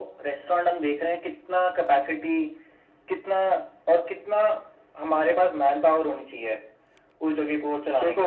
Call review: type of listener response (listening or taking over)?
taking over